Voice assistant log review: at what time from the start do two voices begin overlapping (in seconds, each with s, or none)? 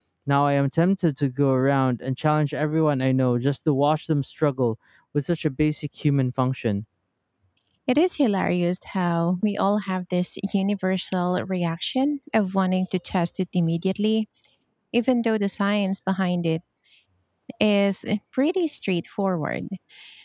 none